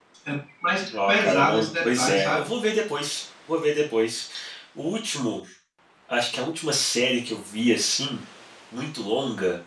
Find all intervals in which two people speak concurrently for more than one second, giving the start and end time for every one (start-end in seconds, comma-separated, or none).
1.1-2.5